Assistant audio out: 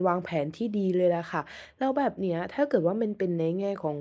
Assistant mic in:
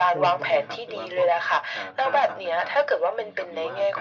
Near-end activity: present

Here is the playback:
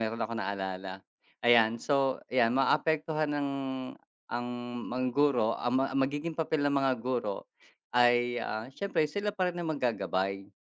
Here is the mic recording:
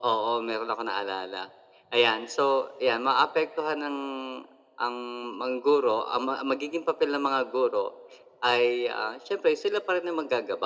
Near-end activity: none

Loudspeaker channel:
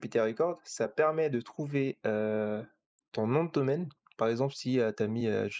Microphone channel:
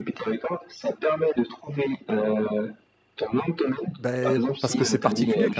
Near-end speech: present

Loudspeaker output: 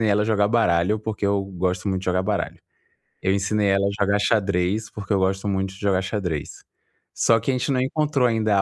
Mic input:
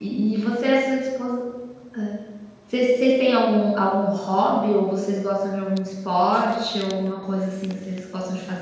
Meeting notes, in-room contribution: present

